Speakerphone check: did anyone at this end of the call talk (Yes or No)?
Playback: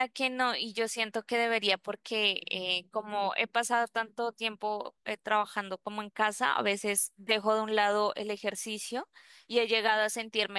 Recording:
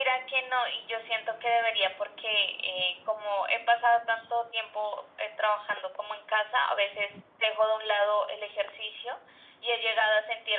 No